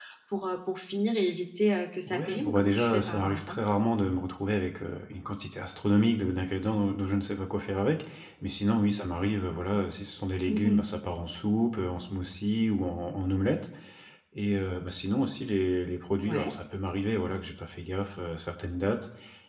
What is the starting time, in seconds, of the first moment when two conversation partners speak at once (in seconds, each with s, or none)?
2.0 s